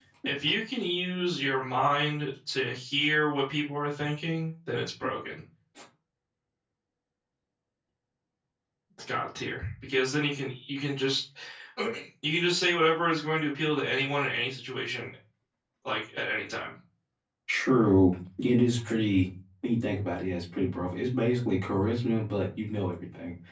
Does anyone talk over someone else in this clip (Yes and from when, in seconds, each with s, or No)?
No